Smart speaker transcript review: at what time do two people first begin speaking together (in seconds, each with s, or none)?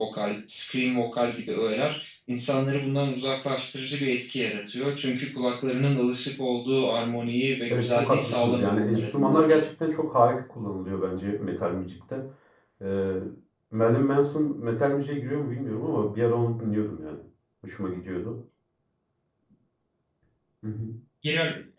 7.7 s